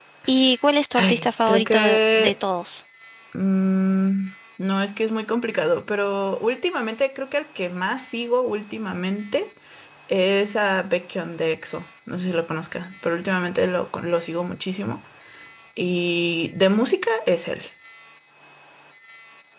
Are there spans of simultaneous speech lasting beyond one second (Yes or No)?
Yes